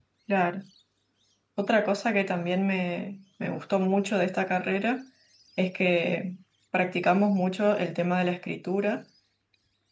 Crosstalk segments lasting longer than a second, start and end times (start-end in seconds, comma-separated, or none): none